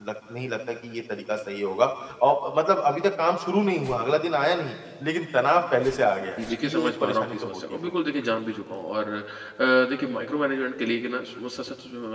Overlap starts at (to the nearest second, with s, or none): 6 s